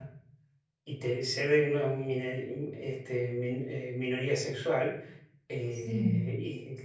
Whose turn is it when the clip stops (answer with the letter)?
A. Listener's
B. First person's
B